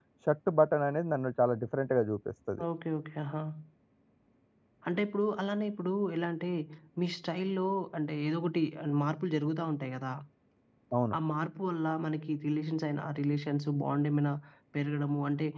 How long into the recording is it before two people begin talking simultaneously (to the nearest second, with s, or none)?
none